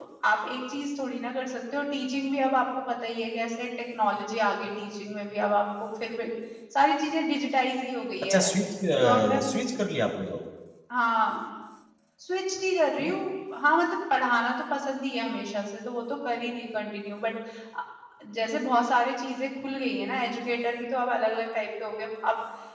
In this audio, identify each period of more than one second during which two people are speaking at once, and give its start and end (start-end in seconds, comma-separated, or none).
none